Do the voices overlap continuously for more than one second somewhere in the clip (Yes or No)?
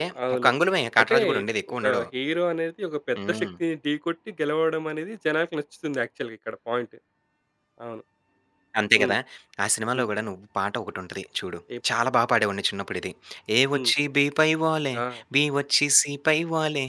No